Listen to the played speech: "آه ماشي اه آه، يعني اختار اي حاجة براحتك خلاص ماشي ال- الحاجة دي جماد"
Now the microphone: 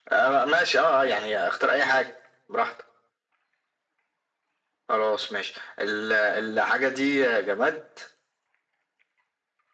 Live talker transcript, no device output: none

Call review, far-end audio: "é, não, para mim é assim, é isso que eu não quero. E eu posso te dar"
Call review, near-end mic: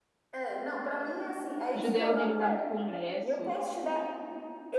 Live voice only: ajudei a organizar muito congresso,

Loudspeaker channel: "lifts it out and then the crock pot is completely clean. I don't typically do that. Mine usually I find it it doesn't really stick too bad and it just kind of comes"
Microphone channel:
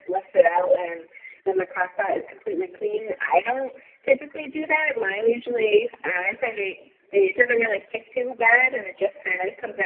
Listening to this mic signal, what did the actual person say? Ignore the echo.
none

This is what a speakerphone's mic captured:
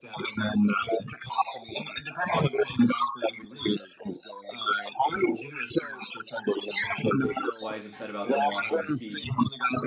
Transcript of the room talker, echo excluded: why he's upset about them washing his feet.

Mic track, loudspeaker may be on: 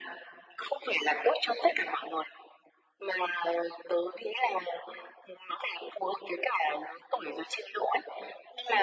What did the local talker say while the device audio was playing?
none

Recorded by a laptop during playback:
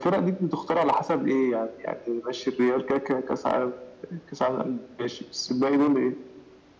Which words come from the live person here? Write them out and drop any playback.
none

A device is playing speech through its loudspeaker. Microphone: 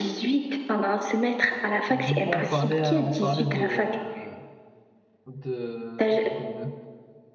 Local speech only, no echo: Du coup, on parlait, à- on parlait de, de, de, de- de-

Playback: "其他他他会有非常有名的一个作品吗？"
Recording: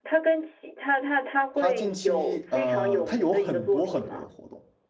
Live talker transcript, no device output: 他近期呃，他有很多很多的活动，

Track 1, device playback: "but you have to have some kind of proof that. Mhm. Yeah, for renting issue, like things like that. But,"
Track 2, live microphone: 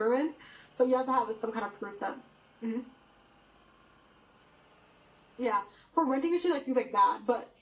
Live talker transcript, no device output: none

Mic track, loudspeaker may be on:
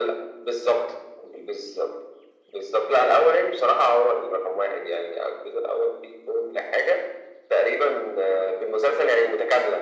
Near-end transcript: none

